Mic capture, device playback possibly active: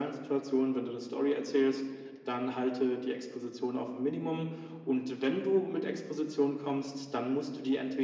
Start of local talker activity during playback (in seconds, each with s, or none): none